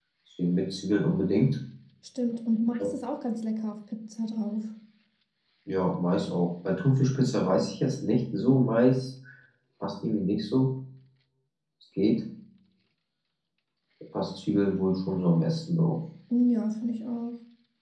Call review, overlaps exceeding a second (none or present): none